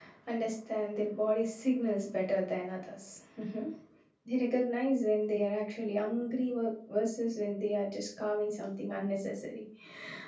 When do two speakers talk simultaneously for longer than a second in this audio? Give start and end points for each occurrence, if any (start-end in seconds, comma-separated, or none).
none